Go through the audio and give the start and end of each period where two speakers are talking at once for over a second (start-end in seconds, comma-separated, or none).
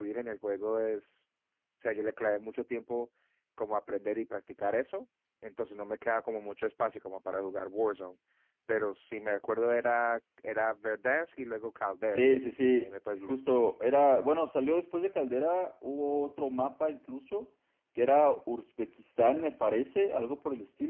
none